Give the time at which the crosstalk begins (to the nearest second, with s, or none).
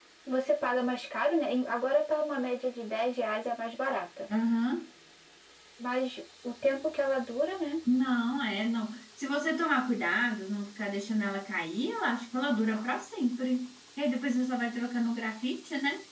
none